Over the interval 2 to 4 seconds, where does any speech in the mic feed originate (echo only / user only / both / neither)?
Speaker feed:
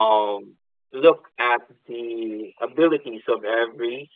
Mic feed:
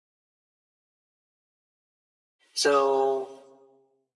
user only